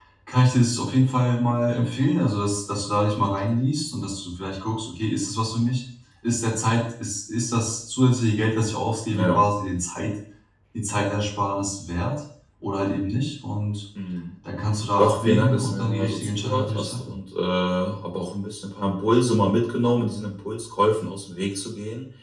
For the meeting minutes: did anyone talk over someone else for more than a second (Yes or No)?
Yes